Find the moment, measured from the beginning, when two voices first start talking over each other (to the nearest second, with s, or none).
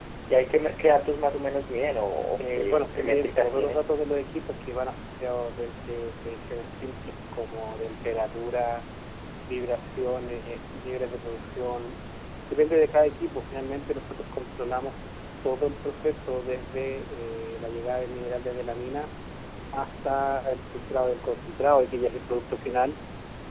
2 s